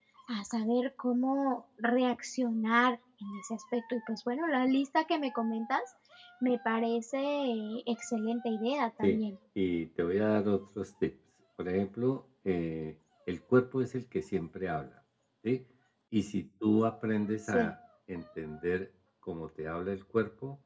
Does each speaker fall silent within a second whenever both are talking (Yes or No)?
Yes